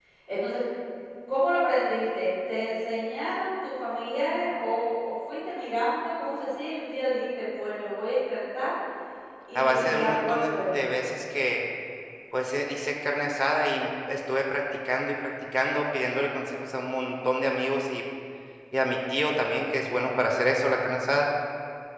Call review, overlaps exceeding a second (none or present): present